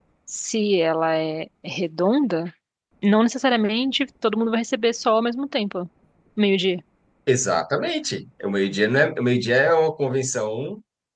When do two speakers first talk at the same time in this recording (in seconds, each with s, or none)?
none